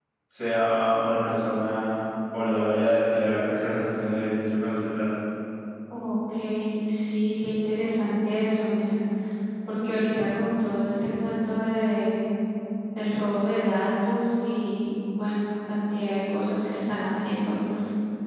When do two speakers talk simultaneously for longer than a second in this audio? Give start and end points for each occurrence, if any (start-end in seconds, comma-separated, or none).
none